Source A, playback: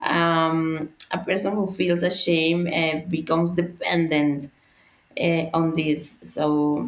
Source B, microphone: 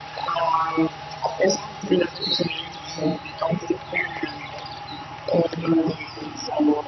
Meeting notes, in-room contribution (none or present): none